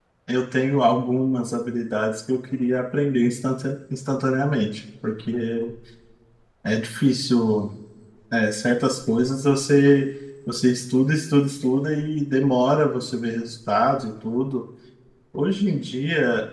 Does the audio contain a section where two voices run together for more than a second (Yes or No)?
No